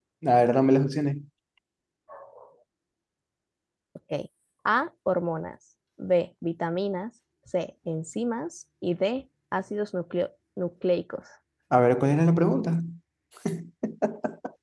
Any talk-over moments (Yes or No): No